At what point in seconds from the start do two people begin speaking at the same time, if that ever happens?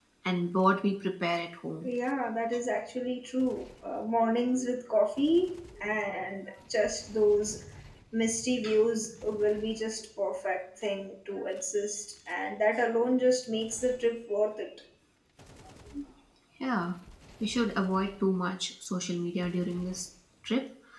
none

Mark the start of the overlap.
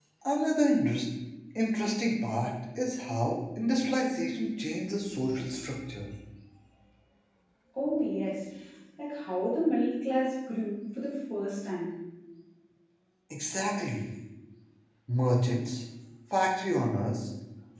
none

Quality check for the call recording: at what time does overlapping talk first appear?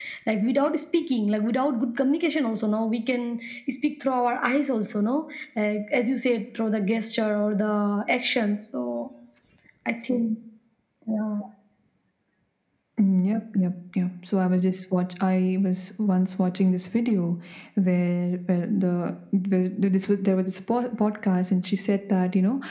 none

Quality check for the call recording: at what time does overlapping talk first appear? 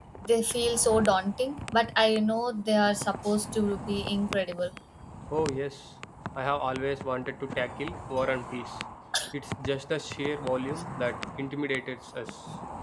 none

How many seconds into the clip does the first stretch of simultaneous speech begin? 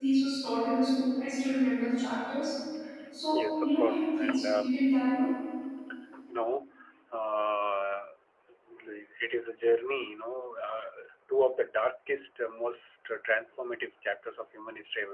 3.3 s

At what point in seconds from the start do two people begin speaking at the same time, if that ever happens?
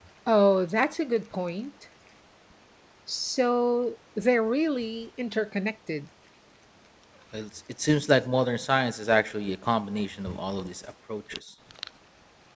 none

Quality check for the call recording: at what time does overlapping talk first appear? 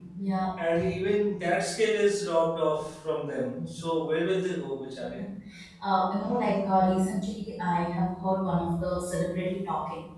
none

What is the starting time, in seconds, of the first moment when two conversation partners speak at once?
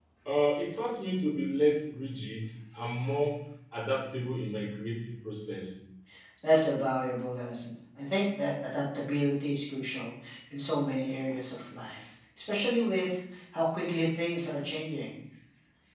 none

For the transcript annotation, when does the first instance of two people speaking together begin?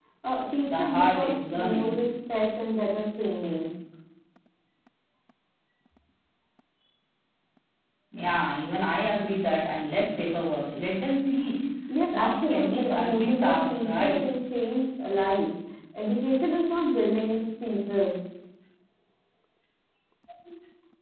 0.6 s

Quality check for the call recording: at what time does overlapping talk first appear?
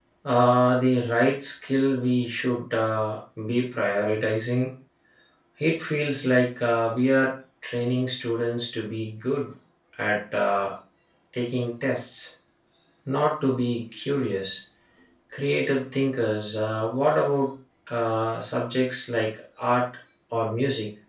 none

